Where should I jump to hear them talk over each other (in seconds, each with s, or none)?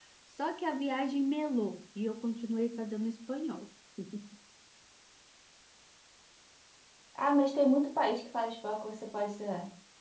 none